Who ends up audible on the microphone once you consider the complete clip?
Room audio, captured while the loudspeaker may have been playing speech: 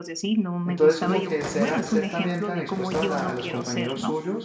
both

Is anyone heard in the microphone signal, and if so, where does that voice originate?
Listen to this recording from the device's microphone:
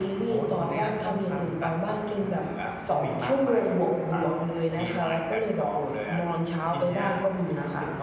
echo only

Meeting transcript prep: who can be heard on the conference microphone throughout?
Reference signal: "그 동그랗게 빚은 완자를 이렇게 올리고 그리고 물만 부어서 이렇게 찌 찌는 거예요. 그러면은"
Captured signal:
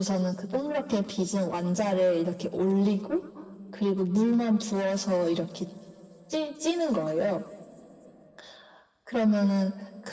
echo only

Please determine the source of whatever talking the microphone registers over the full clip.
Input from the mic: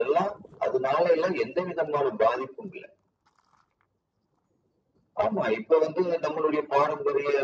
echo only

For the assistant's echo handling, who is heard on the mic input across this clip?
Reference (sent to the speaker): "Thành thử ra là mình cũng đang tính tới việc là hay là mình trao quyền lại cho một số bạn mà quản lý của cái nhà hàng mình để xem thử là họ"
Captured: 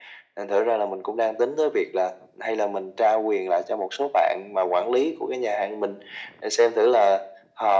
echo only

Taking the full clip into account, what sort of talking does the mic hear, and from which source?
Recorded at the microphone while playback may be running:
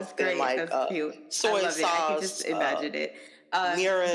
echo only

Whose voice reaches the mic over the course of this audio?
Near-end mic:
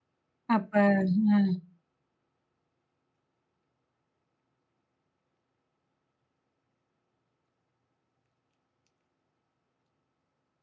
user only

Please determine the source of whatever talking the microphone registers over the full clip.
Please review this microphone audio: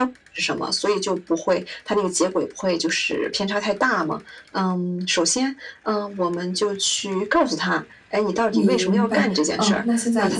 both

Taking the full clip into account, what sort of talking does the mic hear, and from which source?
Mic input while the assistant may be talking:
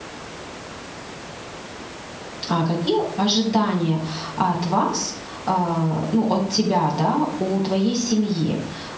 user only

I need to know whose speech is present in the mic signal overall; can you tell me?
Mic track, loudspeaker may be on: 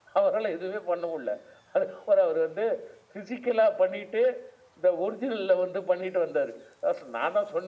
echo only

